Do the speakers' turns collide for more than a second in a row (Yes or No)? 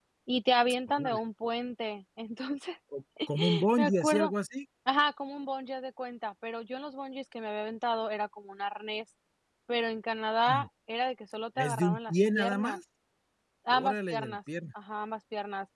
Yes